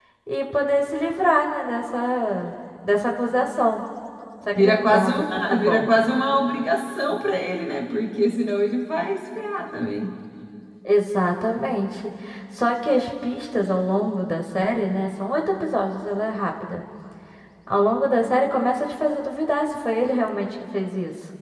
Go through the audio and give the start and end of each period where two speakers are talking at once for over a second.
4.6-5.9

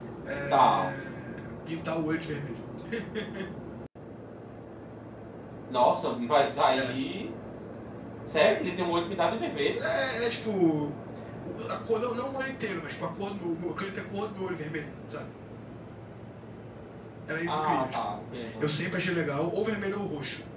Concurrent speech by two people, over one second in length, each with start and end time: 17.4-18.7

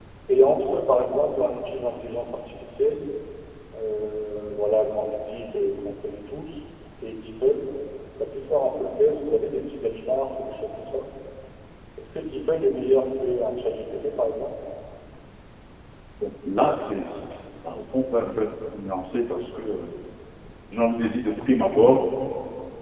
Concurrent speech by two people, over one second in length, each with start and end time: none

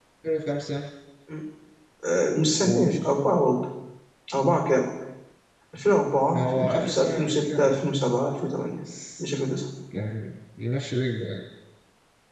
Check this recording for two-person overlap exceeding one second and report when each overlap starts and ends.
6.3-7.8

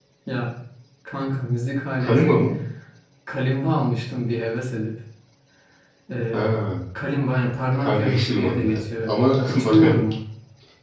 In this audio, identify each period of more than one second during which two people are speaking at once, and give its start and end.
7.8-9.1

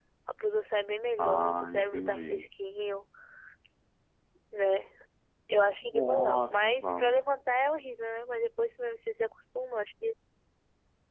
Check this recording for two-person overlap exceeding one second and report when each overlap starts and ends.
1.2-2.5, 5.8-7.2

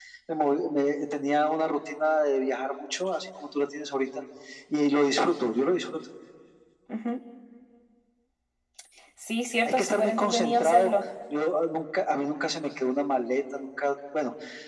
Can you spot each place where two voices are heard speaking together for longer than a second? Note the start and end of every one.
9.6-10.9

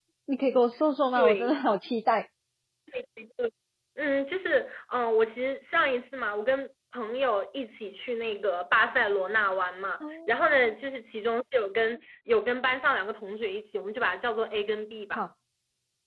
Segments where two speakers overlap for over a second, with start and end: none

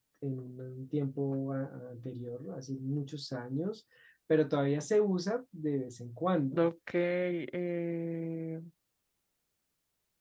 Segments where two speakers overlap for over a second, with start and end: none

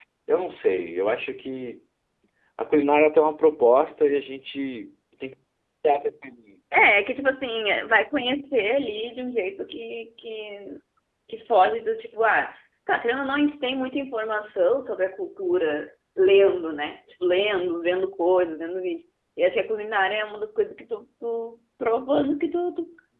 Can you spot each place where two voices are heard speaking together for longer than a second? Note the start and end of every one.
none

